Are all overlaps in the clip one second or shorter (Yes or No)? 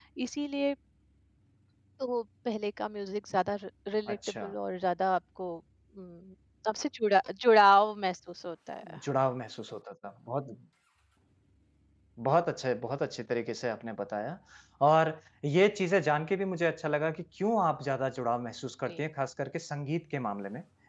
Yes